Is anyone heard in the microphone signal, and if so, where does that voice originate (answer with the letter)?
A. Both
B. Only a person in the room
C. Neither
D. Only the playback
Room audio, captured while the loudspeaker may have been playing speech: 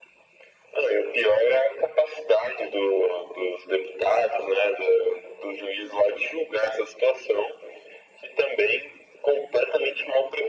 D